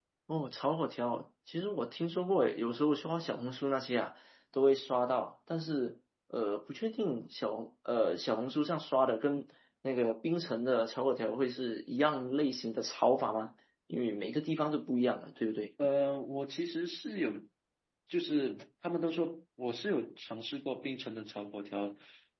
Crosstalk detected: No

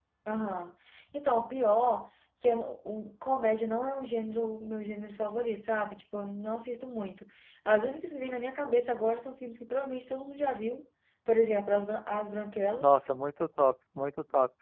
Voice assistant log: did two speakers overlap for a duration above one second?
No

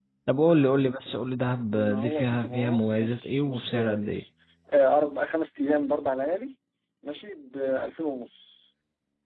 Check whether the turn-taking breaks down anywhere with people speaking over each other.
Yes, from 1.7 s

